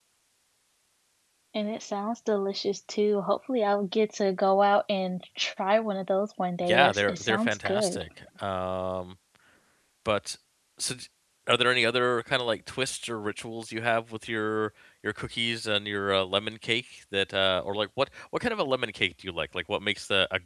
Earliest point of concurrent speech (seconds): 6.6 s

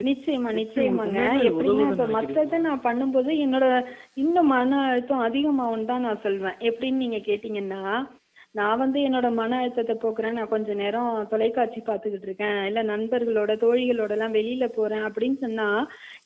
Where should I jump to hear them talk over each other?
0.6 s

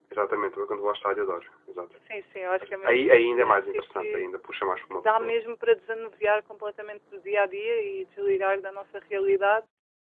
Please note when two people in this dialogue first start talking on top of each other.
2.8 s

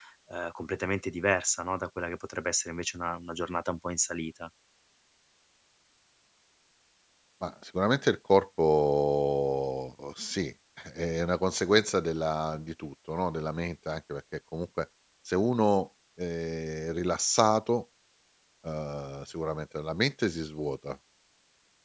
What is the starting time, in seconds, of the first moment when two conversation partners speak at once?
none

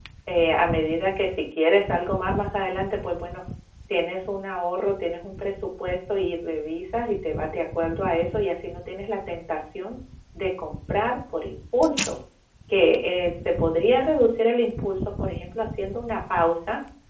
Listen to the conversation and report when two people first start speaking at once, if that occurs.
none

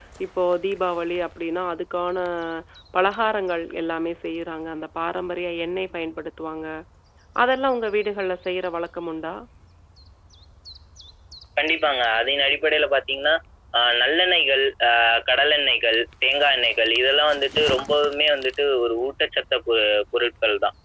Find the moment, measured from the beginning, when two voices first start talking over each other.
none

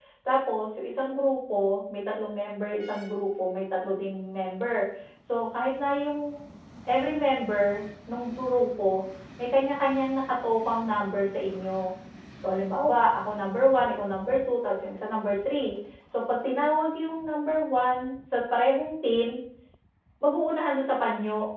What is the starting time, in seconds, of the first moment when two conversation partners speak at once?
none

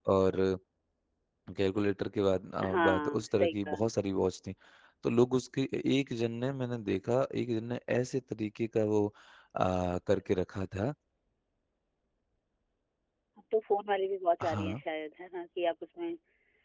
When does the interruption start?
2.6 s

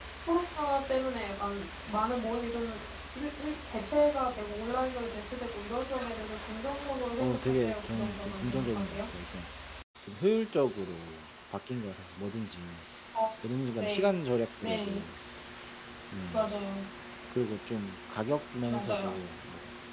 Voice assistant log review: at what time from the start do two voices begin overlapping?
7.2 s

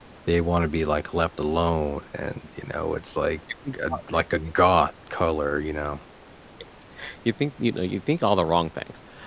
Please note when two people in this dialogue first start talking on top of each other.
none

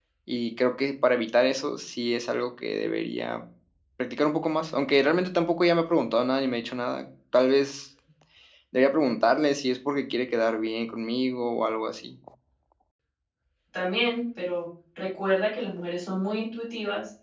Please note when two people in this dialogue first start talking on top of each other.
none

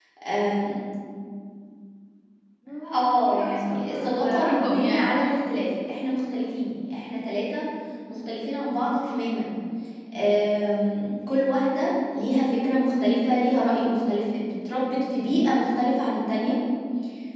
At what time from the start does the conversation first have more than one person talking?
2.9 s

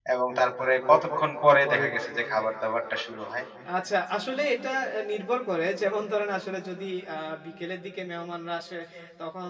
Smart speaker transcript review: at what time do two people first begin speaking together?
none

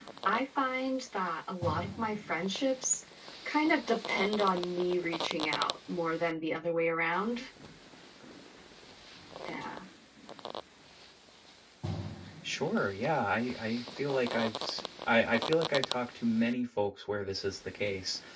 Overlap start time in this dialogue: none

